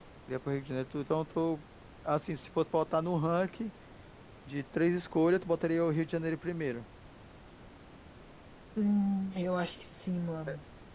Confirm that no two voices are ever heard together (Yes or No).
Yes